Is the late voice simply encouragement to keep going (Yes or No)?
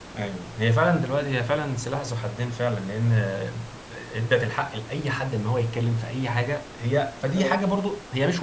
Yes